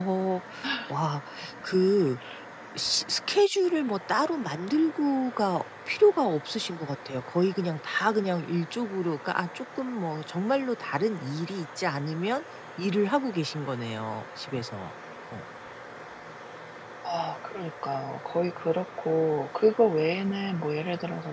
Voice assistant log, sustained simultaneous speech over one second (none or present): none